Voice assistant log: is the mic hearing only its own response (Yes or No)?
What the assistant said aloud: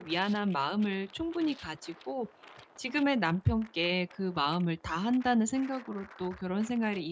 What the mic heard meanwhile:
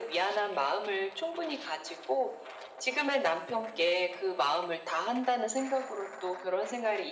Yes